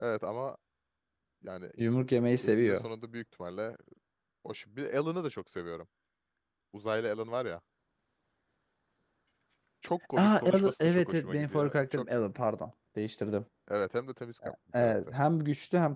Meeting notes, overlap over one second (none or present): present